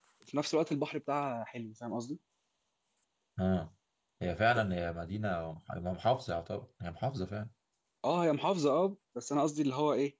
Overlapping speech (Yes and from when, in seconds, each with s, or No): No